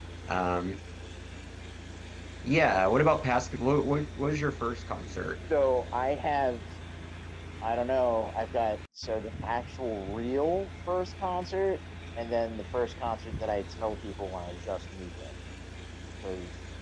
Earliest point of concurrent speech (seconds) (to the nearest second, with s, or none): none